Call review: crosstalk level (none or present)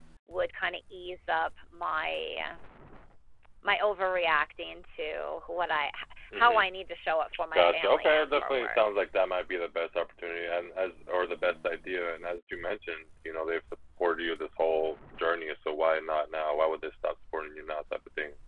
present